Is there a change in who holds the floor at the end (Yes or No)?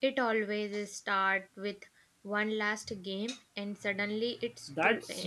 Yes